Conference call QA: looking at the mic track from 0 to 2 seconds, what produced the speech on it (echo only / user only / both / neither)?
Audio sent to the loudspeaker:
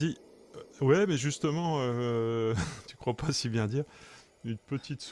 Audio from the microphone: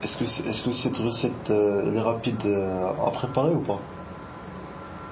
user only